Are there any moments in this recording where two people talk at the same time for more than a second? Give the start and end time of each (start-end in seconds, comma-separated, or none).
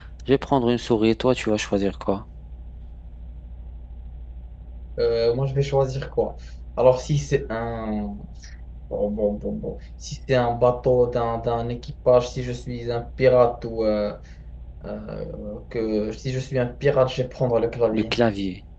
none